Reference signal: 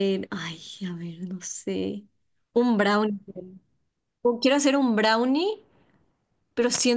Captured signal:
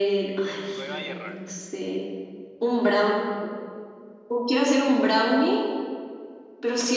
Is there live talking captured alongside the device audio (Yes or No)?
Yes